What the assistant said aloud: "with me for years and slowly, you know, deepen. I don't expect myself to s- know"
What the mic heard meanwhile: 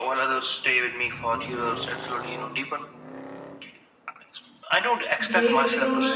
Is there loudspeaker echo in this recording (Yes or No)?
Yes